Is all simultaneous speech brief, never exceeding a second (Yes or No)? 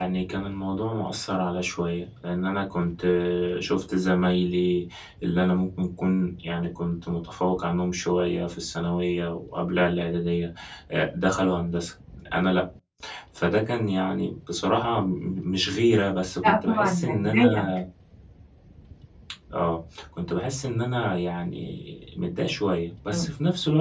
No